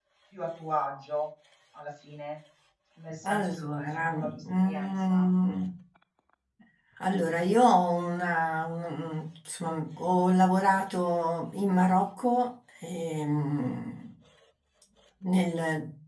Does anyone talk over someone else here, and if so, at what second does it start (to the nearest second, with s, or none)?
3 s